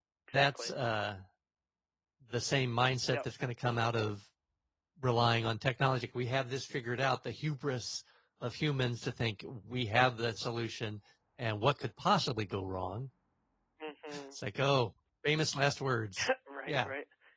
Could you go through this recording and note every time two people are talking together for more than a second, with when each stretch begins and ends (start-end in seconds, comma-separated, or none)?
none